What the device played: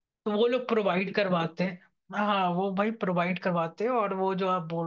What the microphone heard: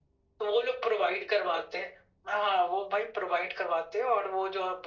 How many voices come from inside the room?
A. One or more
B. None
B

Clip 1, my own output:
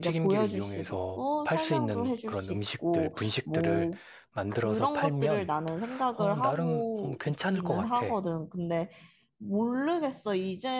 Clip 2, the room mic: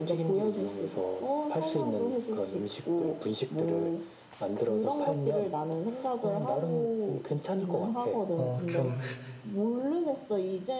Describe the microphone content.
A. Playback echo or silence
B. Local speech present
B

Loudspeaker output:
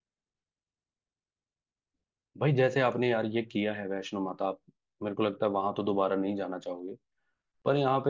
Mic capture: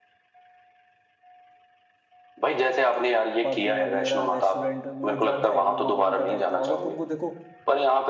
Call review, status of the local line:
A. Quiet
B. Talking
B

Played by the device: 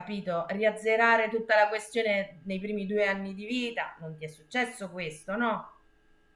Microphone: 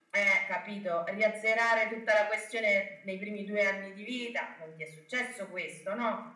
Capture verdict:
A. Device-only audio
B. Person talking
A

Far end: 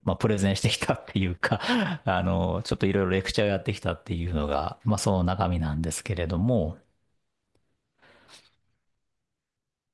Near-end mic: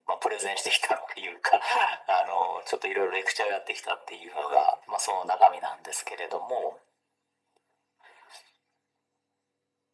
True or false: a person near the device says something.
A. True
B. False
B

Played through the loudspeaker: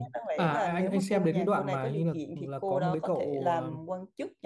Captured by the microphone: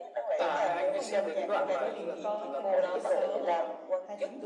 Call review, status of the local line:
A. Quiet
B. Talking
B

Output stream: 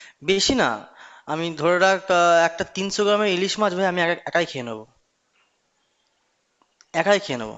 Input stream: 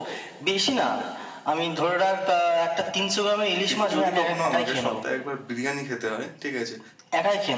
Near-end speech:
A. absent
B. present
B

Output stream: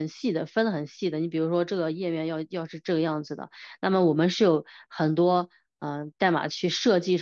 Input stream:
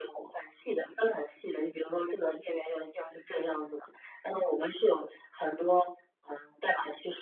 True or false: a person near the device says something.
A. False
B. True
A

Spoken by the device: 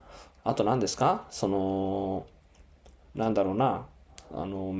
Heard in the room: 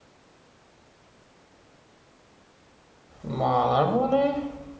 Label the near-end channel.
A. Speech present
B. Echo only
A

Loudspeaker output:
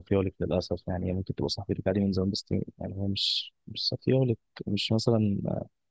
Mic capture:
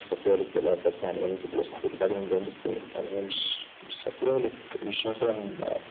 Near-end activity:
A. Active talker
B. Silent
B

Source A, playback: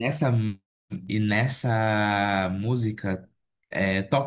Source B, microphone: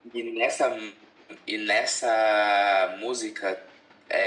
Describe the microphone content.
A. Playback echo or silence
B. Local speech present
A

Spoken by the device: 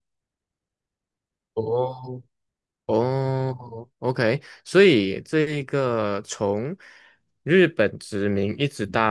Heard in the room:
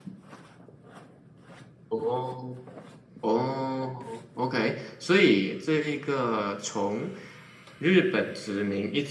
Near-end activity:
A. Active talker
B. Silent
B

